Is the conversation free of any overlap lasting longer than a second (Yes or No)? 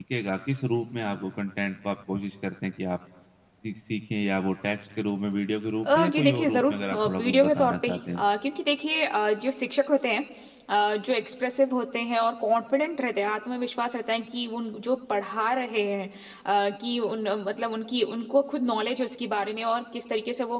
No